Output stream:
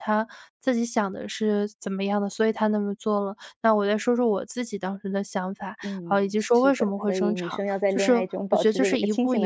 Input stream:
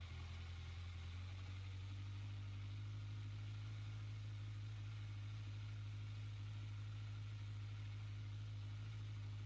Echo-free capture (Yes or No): Yes